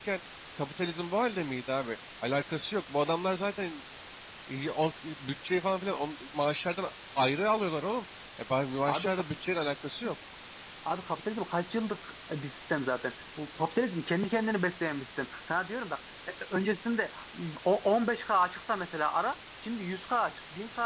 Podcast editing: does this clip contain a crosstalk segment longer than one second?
No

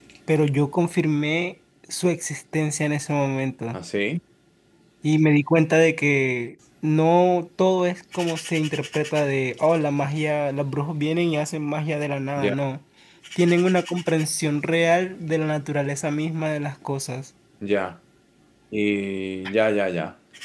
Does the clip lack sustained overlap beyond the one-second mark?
Yes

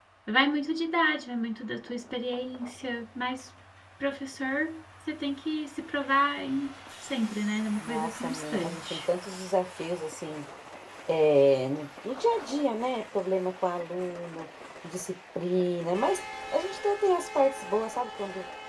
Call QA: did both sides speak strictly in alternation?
No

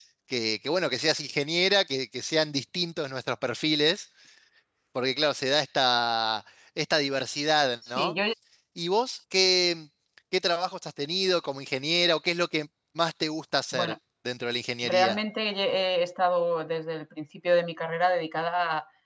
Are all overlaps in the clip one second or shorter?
Yes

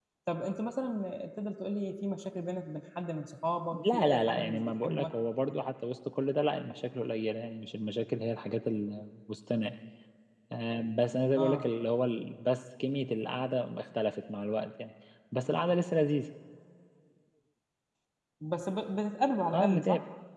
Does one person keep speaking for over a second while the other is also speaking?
Yes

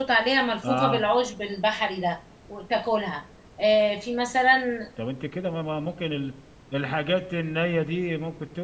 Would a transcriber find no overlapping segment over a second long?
Yes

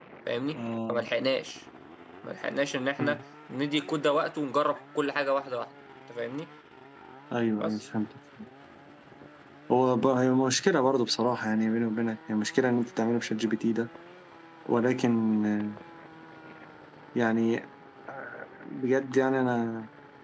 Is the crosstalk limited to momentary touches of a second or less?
Yes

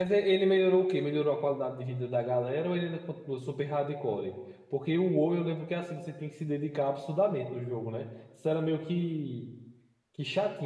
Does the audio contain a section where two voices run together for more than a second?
No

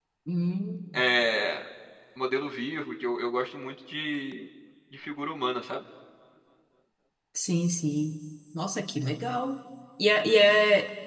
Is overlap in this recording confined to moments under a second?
Yes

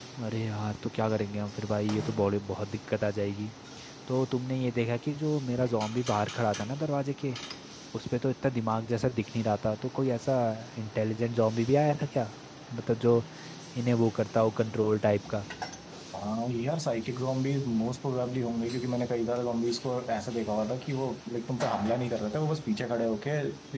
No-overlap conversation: Yes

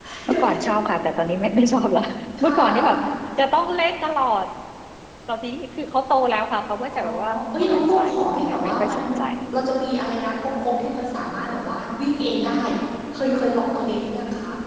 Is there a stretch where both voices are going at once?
Yes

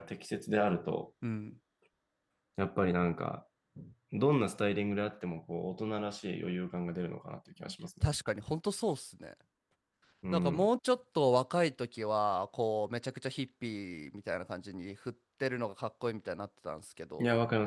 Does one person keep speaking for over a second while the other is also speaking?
No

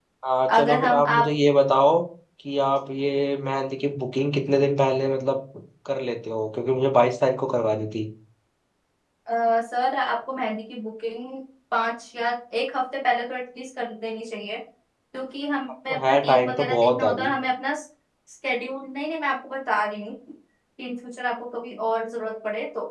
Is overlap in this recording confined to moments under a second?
No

